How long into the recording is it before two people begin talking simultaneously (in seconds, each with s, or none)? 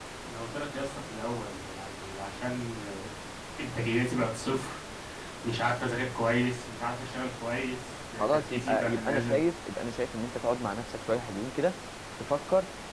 8.2 s